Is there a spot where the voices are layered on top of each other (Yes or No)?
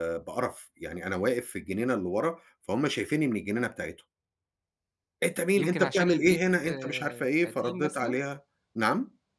Yes